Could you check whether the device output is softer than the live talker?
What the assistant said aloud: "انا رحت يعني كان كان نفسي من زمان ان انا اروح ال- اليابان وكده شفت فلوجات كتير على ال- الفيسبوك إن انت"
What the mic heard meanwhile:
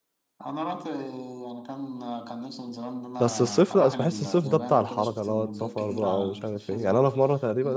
Yes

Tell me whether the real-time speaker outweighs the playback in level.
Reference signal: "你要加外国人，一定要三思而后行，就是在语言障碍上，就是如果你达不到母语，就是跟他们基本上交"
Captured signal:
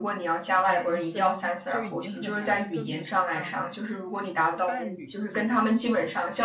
No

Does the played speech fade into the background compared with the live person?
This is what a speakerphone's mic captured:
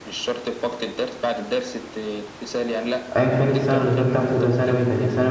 Yes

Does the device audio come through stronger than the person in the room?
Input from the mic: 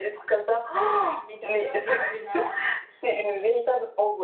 Yes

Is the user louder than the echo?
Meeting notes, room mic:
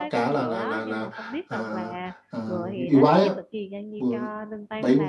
No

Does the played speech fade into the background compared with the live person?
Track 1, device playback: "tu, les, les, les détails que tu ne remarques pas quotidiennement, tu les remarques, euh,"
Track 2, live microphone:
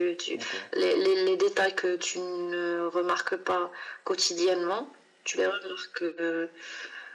No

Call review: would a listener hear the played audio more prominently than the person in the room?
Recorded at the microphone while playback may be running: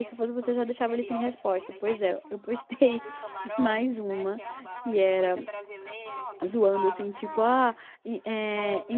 No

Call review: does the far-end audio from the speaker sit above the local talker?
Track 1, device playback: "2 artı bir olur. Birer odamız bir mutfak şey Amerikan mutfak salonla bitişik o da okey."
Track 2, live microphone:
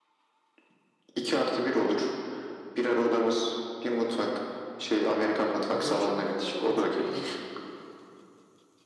Yes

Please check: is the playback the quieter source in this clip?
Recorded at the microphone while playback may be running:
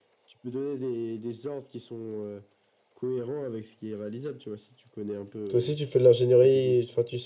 Yes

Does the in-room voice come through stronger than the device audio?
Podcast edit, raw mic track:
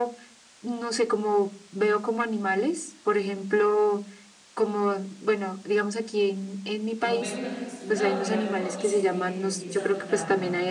No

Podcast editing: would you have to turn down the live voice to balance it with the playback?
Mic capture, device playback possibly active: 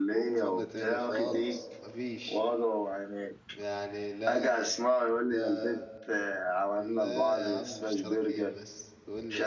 No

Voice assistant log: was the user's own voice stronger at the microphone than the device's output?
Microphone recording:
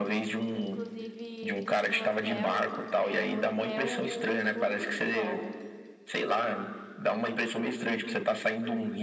No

